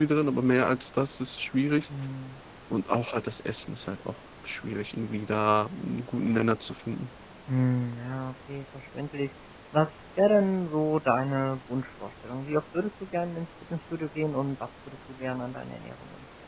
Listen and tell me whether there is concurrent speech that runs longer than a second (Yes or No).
No